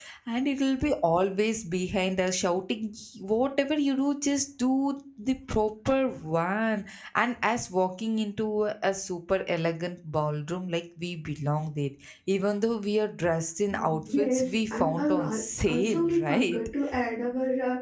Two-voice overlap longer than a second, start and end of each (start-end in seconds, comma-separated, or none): 13.7-16.6